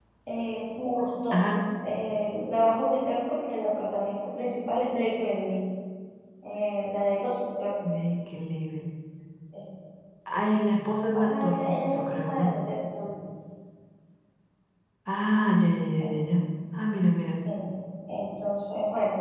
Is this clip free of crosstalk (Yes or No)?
No